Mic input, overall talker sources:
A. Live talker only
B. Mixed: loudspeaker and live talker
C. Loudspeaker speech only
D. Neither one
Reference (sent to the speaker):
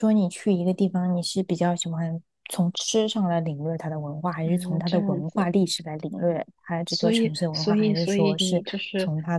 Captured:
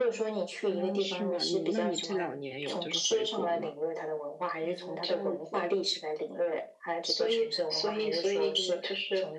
B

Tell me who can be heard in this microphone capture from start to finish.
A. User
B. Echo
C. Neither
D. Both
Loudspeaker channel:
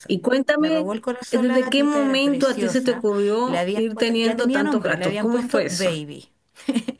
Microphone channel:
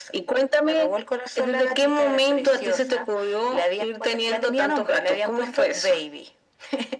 B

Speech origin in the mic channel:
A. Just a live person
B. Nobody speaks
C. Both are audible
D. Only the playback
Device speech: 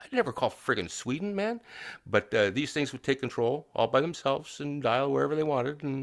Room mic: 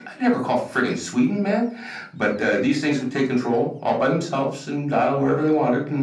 D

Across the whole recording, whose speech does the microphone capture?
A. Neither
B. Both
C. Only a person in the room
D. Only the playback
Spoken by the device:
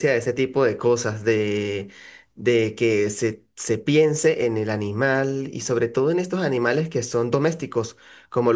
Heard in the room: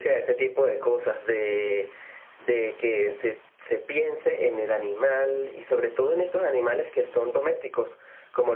D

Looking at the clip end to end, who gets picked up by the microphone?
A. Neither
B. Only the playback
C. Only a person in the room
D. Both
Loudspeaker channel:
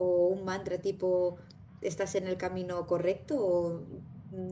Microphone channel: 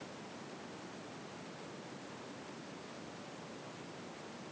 A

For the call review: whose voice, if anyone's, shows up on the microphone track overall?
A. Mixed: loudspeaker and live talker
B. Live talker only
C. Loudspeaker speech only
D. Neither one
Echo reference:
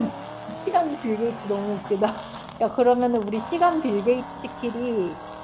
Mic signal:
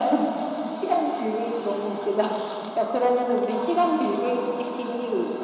C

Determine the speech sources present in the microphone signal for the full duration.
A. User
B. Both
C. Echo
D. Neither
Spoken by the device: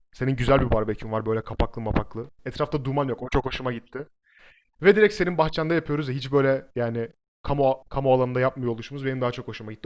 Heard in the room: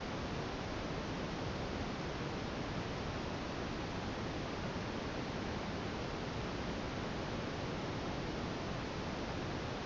D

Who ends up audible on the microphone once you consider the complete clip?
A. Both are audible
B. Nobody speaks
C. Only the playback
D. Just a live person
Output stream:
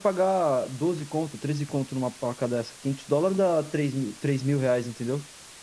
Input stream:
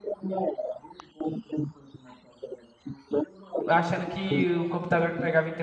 A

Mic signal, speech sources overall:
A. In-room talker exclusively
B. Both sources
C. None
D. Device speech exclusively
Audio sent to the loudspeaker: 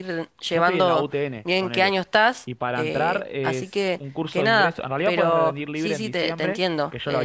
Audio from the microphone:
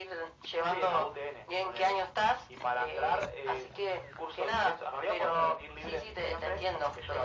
D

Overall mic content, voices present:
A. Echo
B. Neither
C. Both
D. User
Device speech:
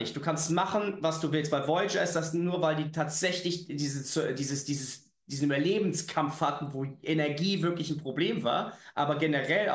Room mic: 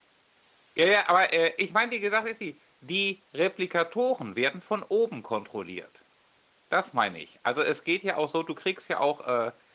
D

